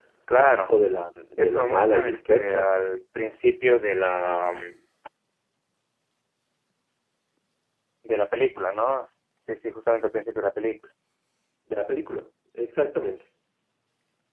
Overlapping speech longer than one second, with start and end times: 1.4-2.7

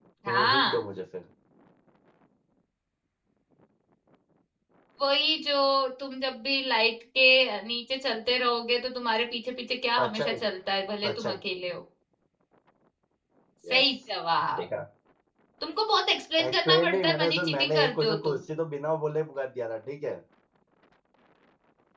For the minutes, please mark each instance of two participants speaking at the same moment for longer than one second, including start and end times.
16.4-18.4

